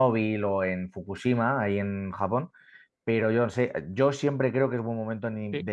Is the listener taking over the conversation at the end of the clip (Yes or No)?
No